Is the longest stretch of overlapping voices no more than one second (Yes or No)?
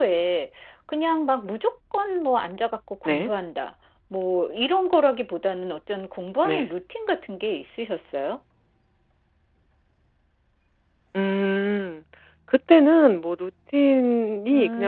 Yes